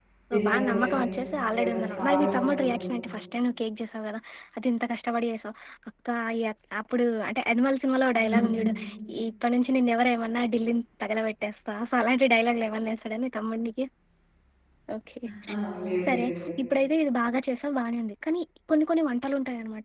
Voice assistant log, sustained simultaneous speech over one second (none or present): present